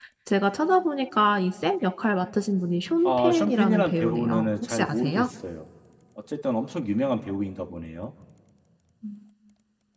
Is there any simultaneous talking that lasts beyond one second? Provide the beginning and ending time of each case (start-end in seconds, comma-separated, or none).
3.0-5.3